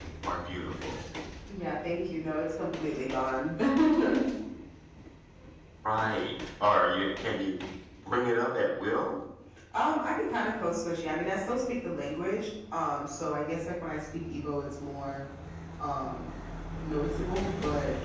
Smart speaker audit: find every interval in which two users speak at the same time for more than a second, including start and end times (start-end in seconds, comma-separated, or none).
none